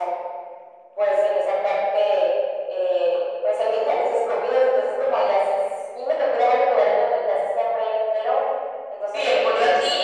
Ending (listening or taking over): taking over